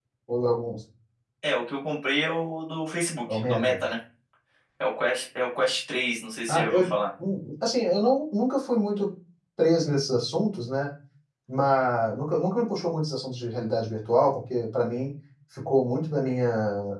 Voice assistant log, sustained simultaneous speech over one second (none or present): none